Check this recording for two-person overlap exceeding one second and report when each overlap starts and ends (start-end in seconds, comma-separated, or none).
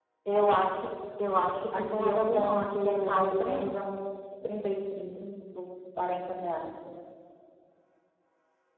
1.8-3.8